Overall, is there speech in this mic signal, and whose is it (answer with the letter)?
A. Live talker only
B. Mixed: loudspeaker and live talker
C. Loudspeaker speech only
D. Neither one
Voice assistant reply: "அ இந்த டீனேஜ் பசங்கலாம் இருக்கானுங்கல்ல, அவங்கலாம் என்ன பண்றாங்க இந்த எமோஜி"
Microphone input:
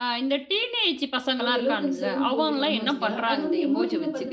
B